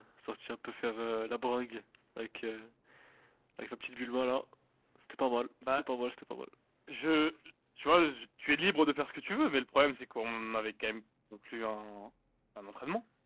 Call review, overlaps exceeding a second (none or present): none